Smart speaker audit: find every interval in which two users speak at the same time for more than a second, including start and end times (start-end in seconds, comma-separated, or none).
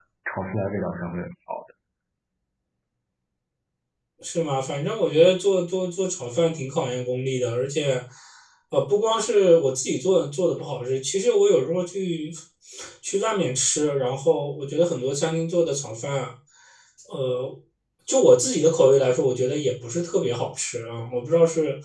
none